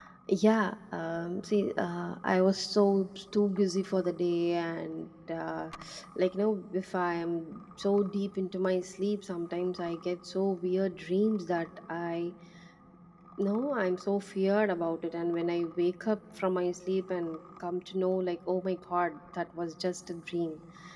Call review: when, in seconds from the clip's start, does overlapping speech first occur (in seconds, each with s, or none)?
none